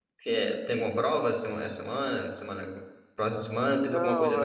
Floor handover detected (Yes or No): Yes